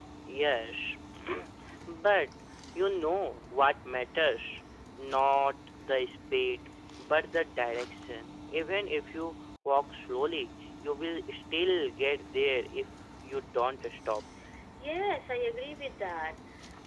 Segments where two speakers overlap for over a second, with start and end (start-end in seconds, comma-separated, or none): none